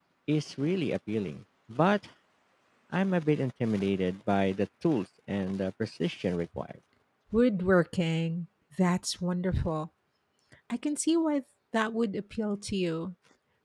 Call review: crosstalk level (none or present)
none